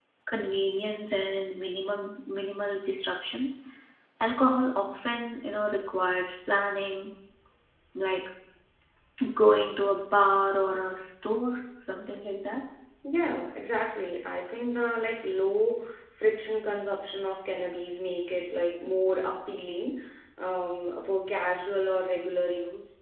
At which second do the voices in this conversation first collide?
none

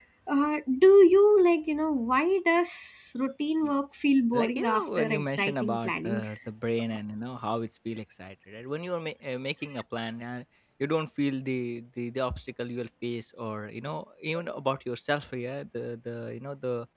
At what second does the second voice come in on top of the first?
4.3 s

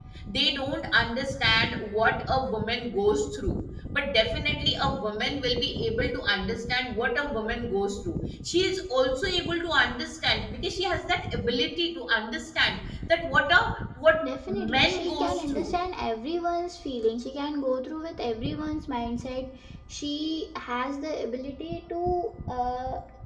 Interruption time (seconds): 14.2 s

